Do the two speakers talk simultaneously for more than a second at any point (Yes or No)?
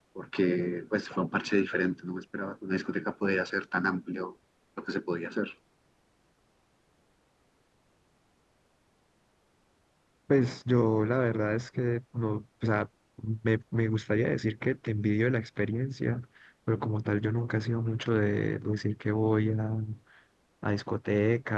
No